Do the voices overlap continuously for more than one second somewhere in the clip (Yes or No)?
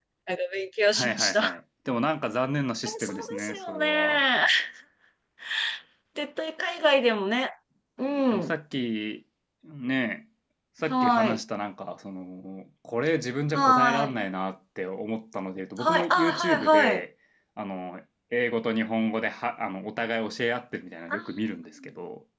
Yes